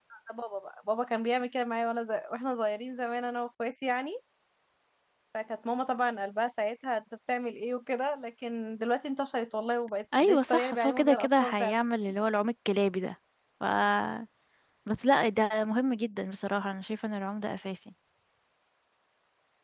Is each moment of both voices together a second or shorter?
No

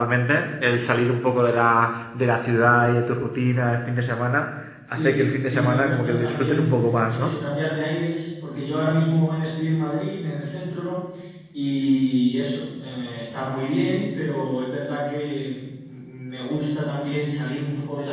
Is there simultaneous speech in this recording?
Yes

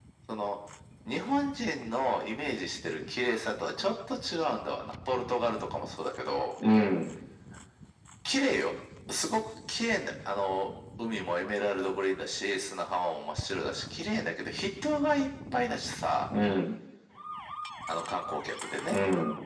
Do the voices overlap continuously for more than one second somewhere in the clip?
No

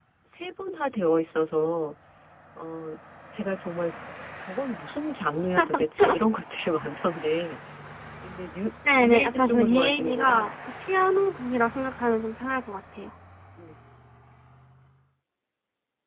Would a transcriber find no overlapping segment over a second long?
No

